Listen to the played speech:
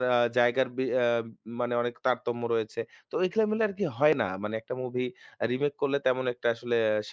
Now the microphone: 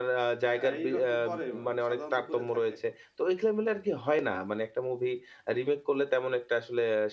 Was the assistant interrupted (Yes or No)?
Yes